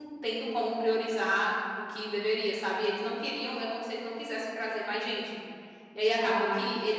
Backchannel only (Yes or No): Yes